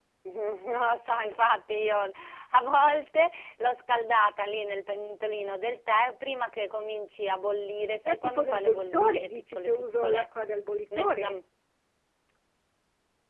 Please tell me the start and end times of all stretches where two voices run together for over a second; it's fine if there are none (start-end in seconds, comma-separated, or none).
8.0-10.3